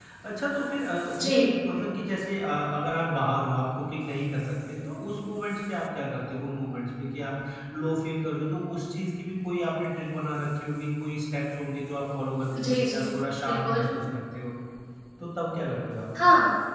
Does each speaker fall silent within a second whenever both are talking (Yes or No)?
Yes